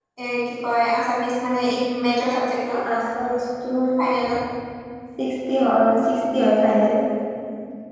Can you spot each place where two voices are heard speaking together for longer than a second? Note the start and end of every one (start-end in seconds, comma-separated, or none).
none